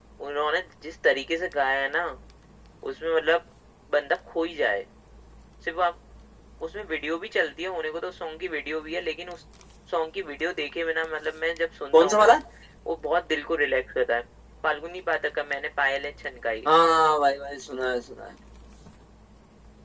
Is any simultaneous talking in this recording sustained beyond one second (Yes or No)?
No